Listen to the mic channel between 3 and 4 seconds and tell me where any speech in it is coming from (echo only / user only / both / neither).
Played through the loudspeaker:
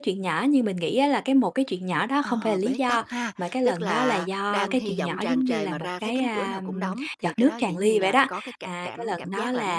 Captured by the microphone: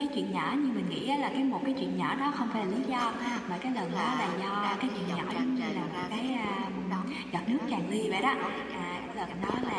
echo only